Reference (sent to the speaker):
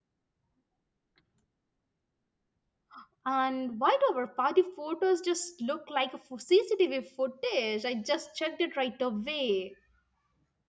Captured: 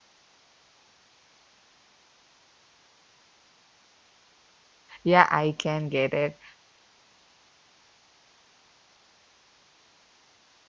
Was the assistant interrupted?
Yes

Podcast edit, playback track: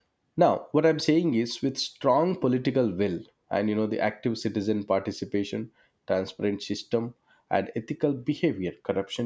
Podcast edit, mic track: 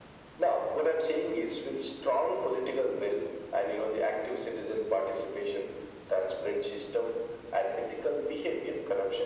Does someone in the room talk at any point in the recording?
No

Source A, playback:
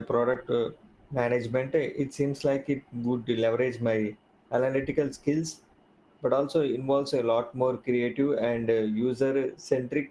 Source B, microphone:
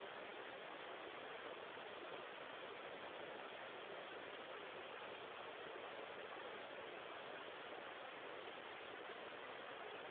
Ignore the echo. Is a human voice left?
No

